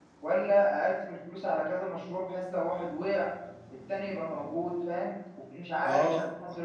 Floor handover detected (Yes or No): Yes